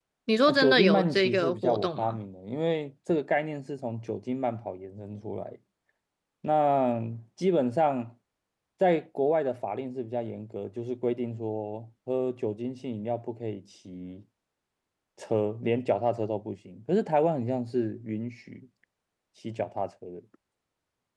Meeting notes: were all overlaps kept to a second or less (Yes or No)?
No